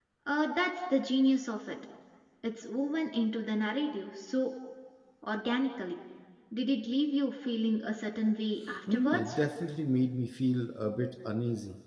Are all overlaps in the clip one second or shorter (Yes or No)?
Yes